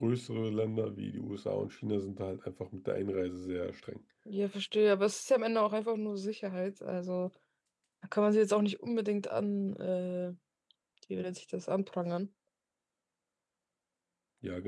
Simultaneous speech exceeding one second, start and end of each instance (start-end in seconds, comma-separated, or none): none